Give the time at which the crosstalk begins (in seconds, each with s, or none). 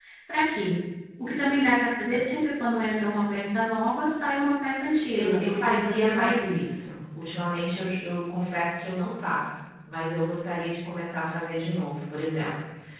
5.2 s